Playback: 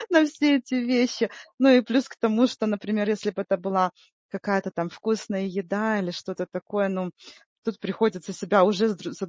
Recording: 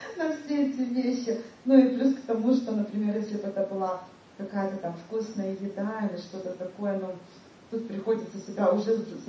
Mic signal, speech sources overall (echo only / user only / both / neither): echo only